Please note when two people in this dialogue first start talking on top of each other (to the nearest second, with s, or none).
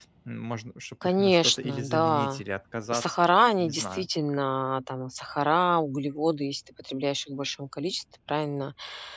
1 s